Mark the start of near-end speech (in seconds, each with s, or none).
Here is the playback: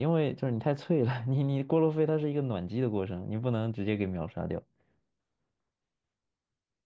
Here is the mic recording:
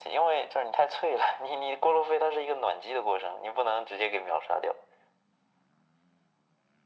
none